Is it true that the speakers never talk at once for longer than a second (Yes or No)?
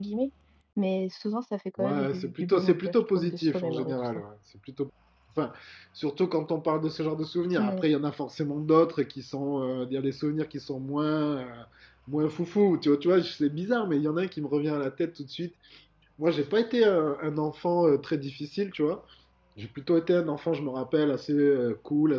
No